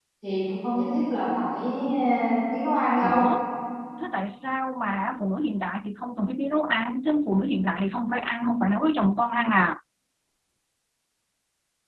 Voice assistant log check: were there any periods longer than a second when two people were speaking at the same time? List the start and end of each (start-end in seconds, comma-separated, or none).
none